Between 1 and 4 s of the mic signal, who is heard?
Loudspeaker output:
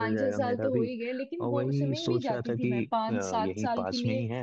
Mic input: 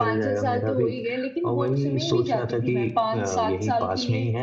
echo only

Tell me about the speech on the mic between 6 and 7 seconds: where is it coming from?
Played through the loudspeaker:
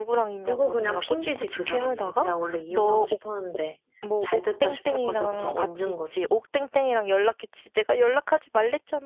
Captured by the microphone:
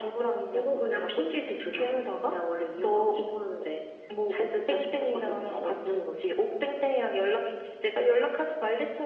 echo only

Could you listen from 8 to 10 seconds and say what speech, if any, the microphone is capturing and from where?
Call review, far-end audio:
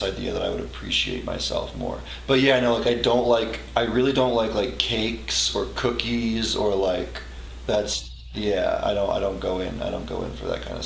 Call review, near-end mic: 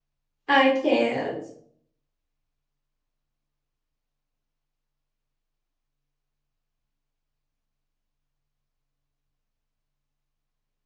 neither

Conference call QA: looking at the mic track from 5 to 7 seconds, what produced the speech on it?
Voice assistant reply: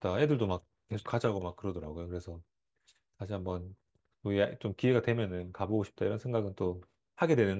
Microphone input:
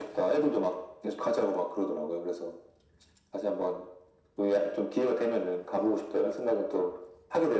echo only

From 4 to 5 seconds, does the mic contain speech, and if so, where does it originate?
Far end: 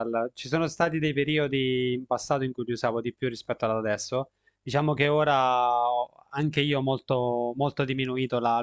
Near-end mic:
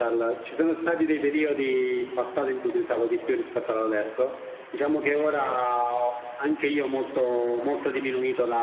echo only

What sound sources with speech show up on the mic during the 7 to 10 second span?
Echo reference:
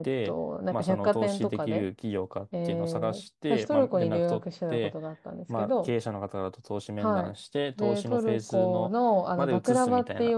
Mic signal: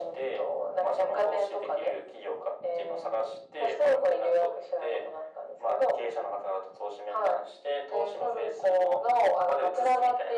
echo only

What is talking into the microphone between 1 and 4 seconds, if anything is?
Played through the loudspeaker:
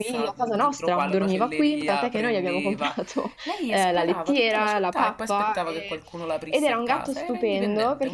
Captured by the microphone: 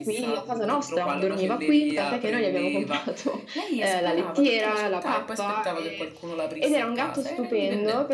echo only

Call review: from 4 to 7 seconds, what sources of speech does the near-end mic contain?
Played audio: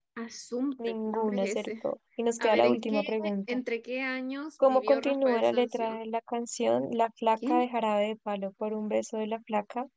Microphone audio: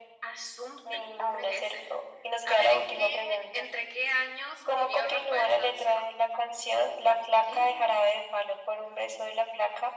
echo only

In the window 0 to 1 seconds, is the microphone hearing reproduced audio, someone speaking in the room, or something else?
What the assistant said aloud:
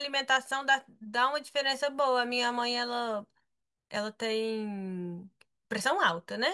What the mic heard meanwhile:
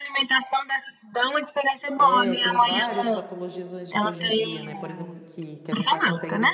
echo only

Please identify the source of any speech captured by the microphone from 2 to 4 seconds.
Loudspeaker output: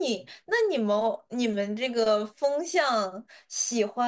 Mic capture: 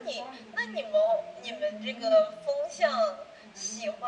both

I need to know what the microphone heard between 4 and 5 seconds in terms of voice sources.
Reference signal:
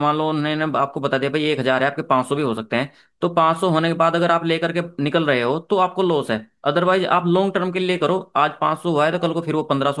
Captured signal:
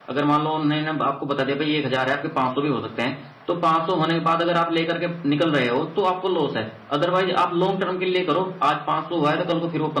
echo only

